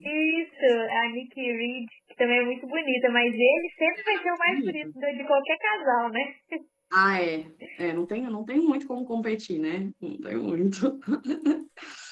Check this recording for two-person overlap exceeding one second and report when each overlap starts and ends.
none

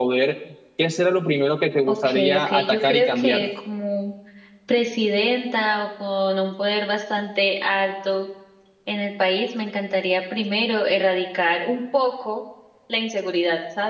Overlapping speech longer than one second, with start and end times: 1.9-3.5

